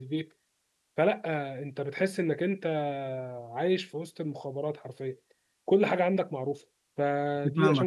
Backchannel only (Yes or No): No